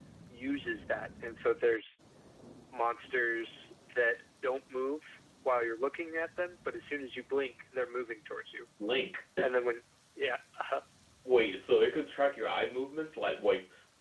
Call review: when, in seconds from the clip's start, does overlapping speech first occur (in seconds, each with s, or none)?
none